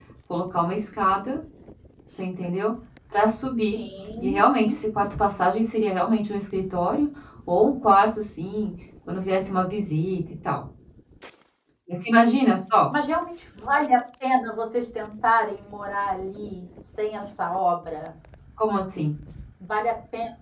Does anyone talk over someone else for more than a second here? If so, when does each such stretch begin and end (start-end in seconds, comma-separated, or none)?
none